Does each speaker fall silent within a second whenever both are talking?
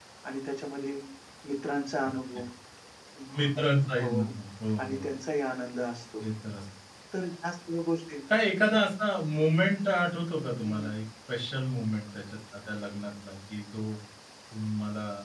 Yes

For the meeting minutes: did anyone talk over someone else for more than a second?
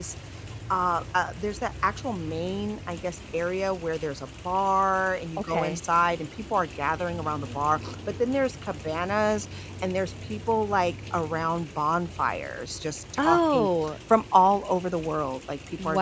No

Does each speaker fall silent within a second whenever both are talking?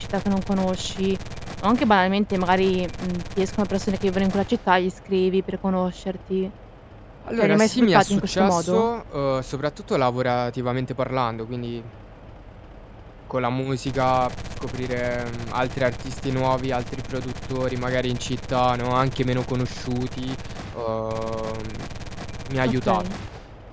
No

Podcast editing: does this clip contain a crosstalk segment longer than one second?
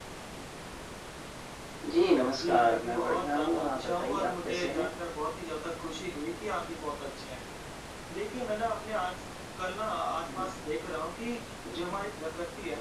Yes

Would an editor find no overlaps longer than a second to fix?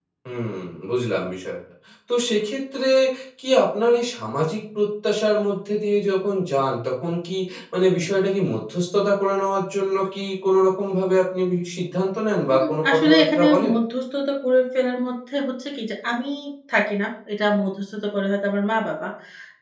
No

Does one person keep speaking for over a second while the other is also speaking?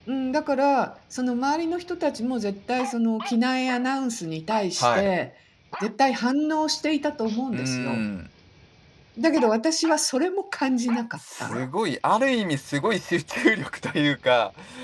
No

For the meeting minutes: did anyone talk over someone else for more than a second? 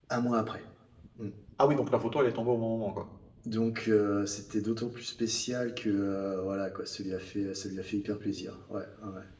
No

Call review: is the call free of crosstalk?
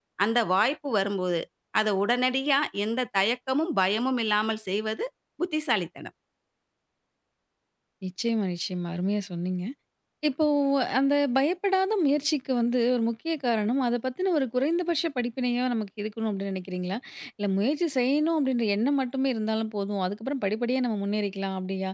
Yes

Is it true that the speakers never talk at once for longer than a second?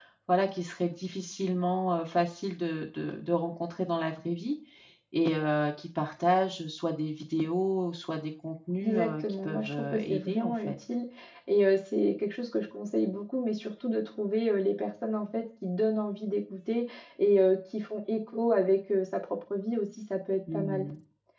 No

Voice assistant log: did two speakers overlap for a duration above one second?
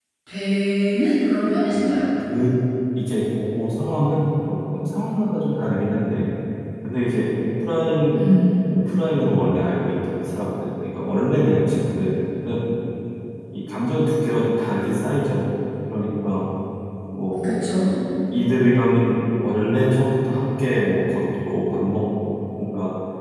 No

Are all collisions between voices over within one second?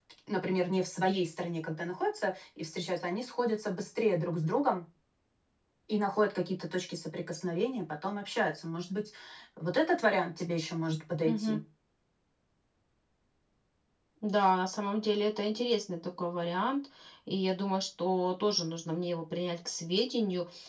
Yes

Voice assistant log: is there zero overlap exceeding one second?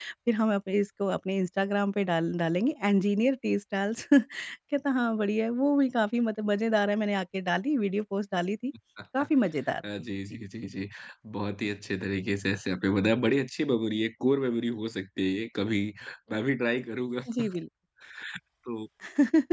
Yes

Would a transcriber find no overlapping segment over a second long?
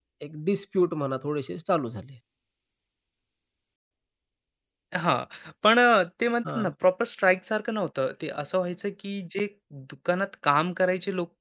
Yes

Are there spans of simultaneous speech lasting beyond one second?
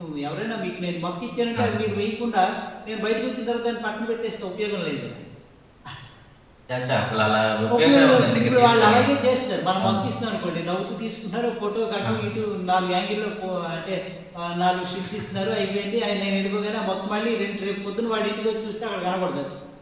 Yes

